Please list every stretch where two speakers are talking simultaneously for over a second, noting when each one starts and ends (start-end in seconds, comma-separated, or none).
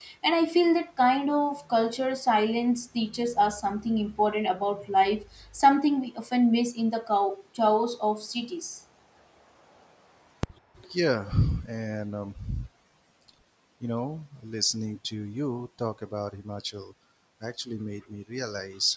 none